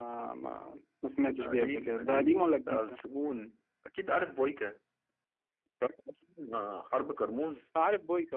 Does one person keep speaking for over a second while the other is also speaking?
Yes, from 1.4 s

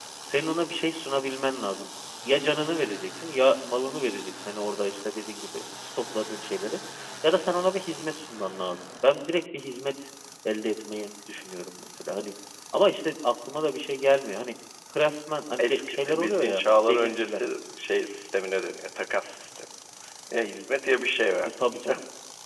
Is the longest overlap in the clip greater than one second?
Yes, from 15.6 s

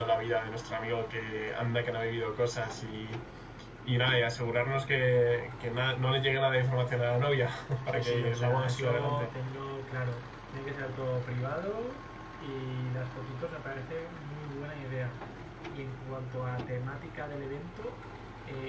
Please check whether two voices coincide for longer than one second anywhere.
Yes, from 7.9 s

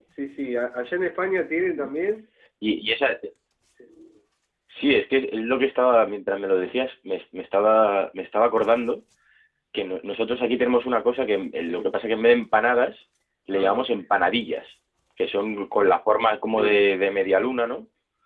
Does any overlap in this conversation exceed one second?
No

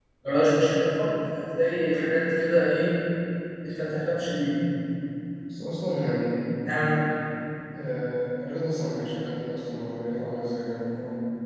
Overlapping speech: No

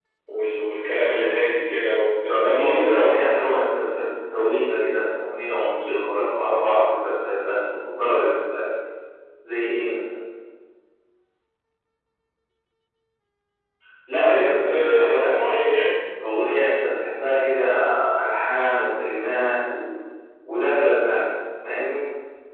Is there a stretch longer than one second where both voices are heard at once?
Yes, from 2.3 s

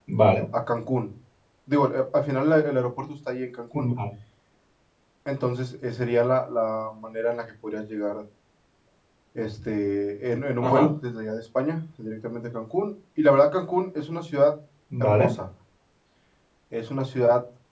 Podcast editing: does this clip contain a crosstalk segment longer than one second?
No

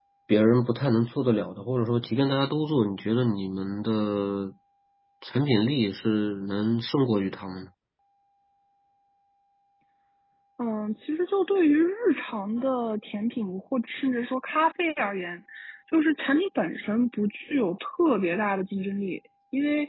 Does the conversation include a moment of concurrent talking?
No

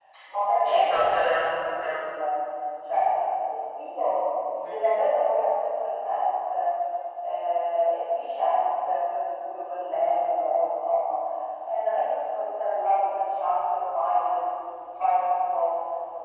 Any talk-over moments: Yes, from 0.6 s

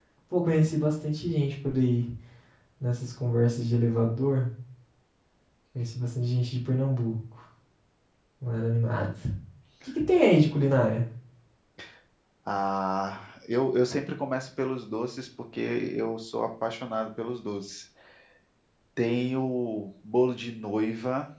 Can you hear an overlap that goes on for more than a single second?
No

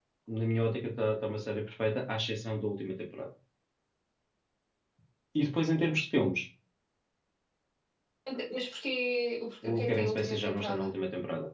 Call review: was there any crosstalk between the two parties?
Yes, from 9.6 s

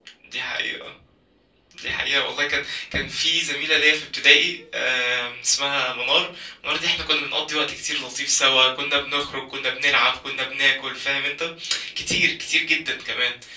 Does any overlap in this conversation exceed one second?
No

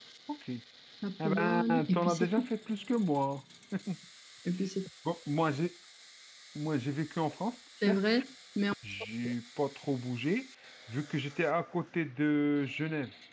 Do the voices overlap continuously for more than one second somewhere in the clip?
Yes, from 1.2 s

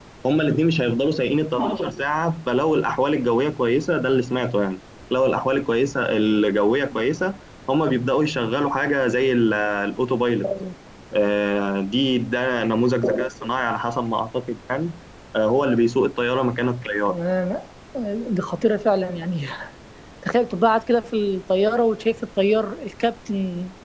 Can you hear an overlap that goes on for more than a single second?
No

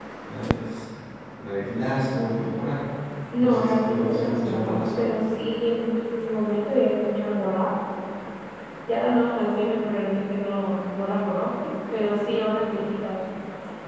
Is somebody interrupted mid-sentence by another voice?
Yes, from 3.4 s

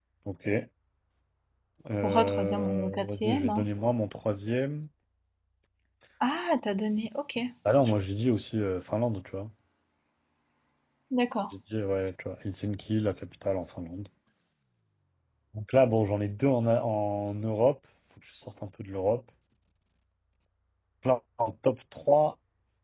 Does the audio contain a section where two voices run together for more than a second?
Yes, from 2.0 s

